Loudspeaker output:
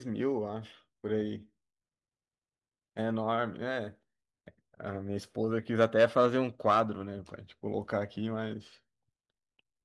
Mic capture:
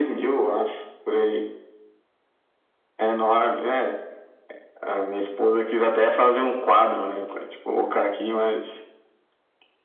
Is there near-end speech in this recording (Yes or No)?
No